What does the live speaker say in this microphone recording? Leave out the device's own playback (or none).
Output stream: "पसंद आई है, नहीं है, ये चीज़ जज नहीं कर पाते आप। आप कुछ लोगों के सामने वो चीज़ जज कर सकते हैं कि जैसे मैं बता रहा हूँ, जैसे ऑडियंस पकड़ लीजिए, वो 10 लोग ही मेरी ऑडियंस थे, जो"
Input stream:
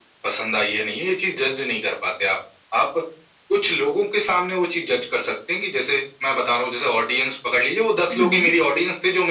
हुँ, हुँ,